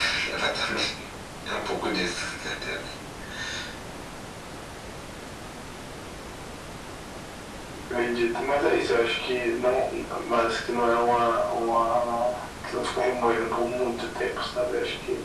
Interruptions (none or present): none